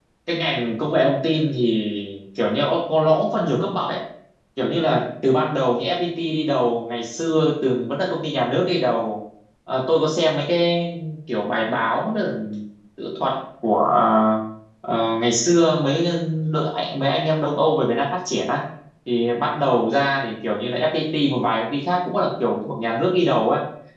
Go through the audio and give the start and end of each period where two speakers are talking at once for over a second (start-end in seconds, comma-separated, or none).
none